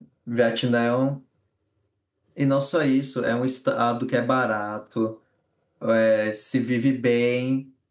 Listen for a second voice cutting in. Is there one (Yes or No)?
No